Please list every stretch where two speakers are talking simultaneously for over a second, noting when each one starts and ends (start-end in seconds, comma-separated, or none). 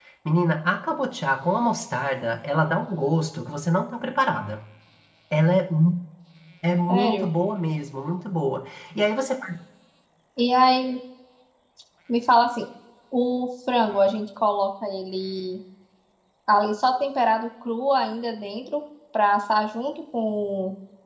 none